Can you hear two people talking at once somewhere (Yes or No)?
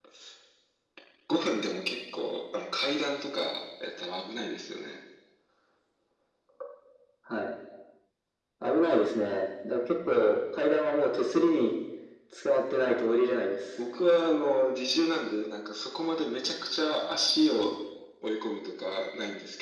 No